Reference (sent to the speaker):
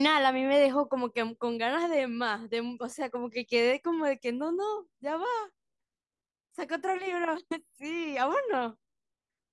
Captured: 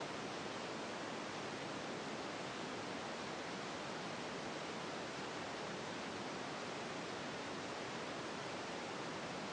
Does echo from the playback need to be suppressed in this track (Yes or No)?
No